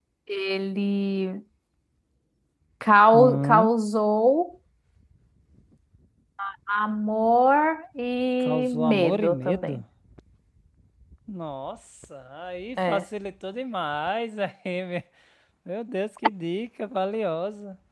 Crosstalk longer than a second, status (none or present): present